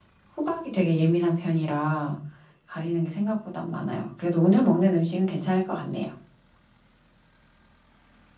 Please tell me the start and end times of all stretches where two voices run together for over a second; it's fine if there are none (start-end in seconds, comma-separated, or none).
none